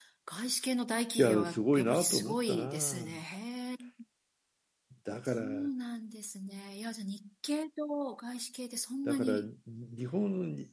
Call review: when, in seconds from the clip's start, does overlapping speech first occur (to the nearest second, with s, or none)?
1 s